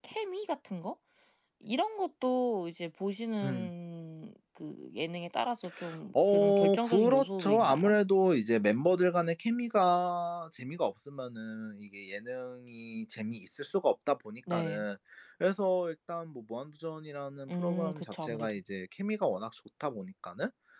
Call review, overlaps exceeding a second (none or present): present